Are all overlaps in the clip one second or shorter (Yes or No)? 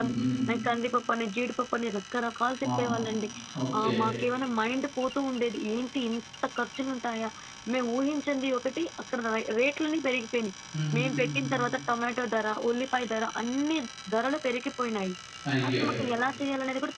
Yes